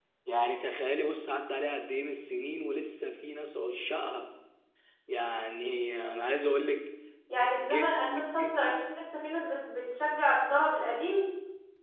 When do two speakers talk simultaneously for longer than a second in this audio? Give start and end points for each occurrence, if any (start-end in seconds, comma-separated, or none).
7.5-8.8